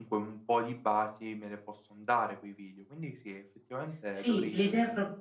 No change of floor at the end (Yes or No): No